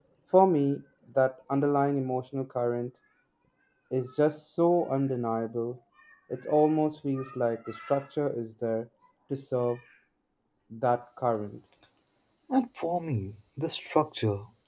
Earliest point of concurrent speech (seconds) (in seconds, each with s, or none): none